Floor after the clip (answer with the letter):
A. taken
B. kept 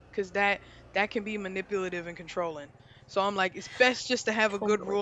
B